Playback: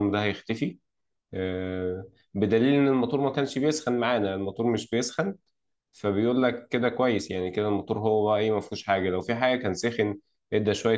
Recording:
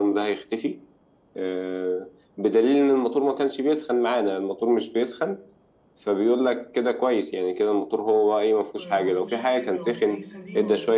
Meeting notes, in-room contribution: present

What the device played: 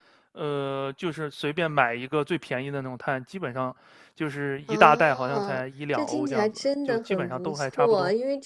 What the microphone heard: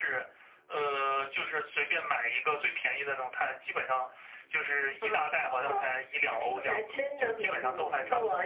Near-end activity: present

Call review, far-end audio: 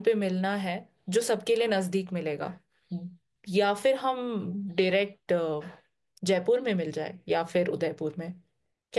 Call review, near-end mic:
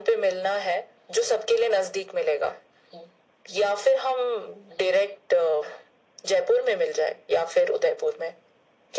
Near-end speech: none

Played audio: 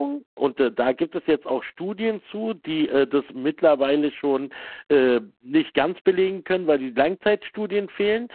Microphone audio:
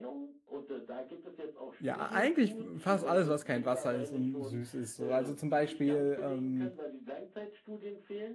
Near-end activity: present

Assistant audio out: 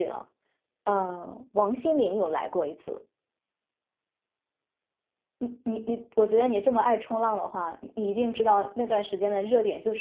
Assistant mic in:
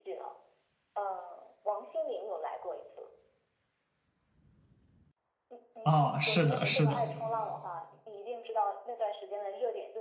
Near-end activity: present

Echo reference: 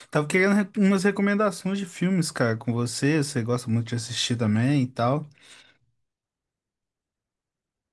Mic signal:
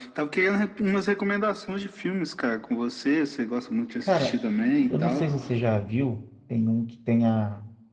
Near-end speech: present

